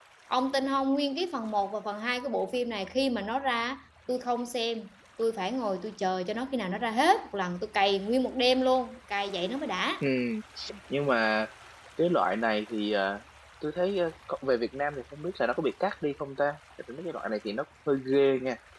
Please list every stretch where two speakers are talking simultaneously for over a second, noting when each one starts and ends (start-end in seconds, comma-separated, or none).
none